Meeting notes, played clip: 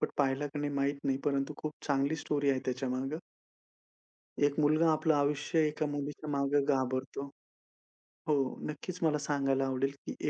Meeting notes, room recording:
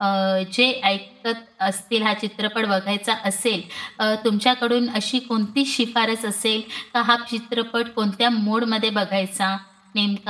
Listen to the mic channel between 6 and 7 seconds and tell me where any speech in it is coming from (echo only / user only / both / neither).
user only